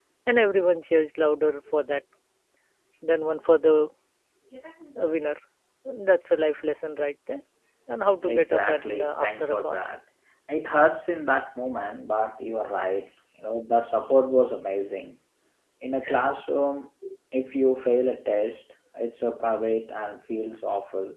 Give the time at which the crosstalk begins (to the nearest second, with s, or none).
8 s